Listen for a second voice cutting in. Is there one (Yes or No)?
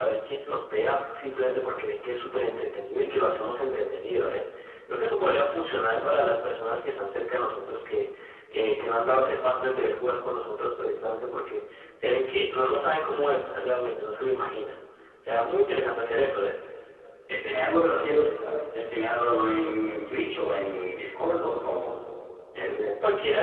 No